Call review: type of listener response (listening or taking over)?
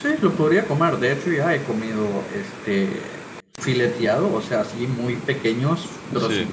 listening